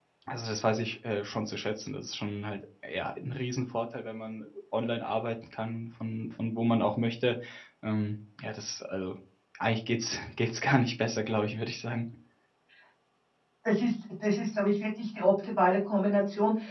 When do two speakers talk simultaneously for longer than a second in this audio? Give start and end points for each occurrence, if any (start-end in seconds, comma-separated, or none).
none